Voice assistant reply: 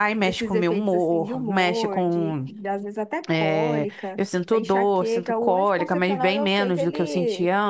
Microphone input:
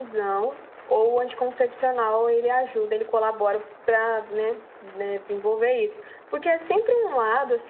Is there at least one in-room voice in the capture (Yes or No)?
Yes